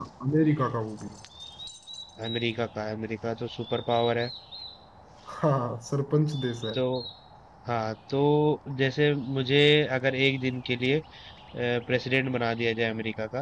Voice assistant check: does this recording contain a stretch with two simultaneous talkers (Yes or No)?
No